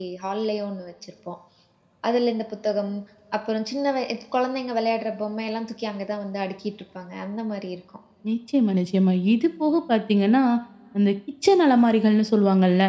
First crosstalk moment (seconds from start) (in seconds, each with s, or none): none